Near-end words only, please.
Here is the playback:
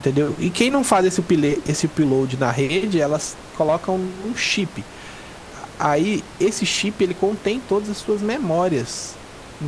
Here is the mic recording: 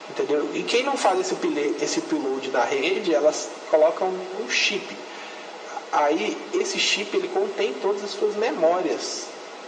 none

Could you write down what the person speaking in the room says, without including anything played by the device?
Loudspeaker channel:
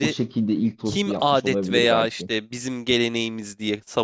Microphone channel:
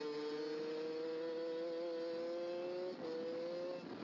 none

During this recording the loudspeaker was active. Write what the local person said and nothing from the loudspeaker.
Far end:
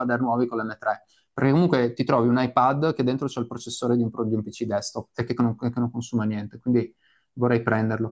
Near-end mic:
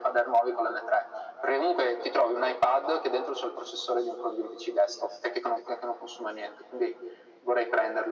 none

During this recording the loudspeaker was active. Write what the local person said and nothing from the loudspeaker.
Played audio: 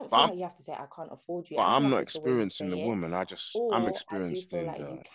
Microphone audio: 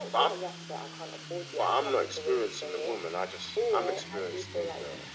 none

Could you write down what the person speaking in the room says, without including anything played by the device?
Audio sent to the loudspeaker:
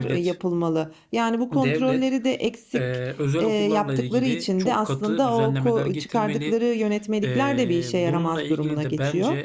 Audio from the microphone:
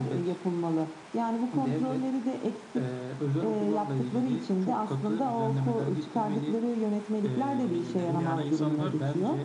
Tabii ki de yani insanlar

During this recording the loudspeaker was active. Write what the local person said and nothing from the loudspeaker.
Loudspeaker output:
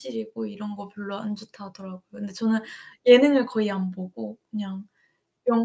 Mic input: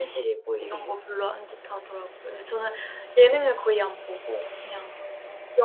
되게,

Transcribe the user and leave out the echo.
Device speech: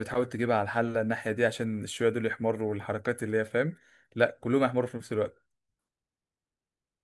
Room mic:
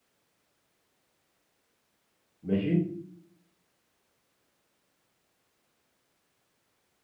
ماشي

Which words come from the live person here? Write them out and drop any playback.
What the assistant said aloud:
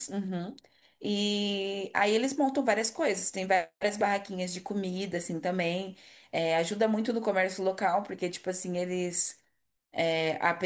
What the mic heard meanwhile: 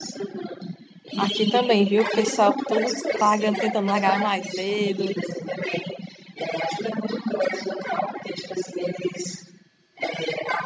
aqui também, viu? O pessoal todo pagando, tentando largar mais cedo,

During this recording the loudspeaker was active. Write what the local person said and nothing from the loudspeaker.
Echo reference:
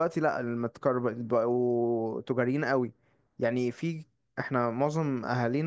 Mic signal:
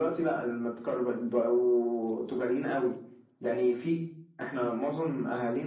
none

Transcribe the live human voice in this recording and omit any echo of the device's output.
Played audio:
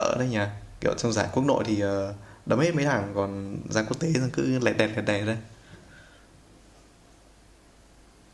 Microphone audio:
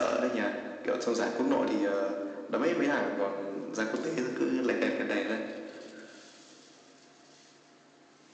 none

